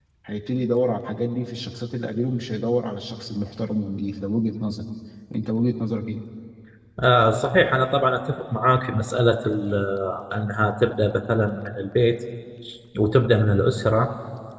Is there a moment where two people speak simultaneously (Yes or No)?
No